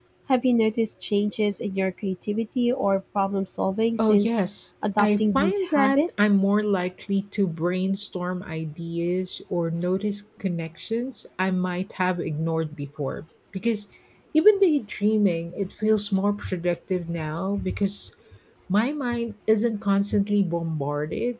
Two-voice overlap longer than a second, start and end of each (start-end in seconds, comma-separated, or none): 5.0-6.3